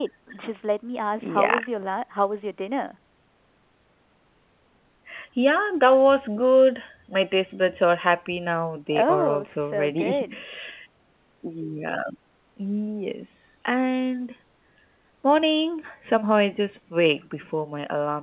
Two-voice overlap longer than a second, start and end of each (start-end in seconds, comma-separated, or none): 8.9-10.2